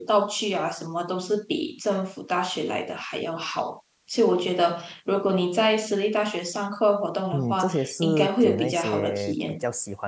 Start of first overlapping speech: 7.3 s

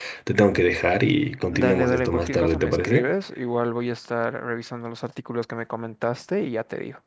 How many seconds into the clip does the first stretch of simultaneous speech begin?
1.5 s

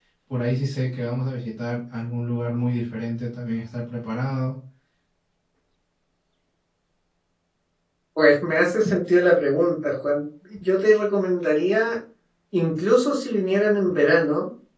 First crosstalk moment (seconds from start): none

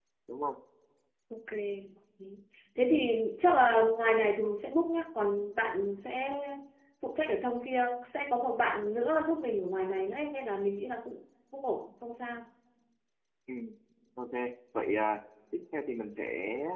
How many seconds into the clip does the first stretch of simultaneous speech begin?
none

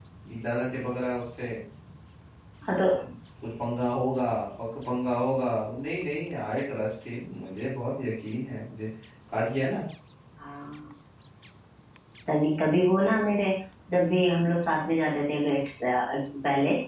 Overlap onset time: none

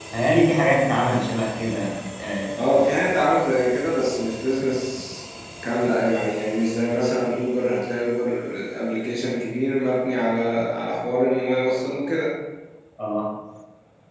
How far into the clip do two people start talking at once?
none

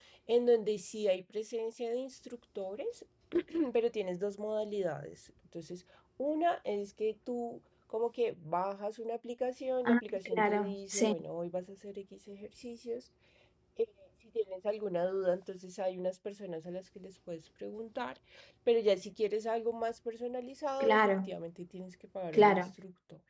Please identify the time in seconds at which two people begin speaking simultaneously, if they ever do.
9.8 s

